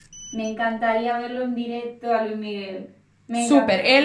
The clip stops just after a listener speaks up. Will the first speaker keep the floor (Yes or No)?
No